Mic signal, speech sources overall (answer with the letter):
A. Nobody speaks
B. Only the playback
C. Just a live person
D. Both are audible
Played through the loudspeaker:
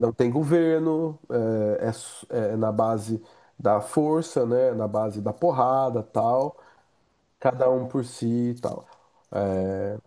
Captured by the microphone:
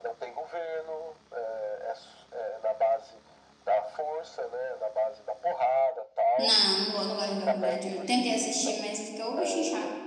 D